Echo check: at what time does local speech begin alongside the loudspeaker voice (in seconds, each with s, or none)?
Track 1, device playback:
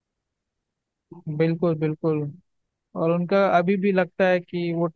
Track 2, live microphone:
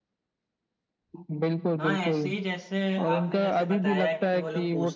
1.8 s